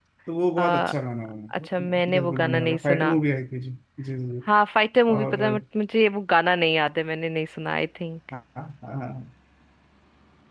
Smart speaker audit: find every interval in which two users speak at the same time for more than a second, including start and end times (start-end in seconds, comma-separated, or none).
1.6-3.1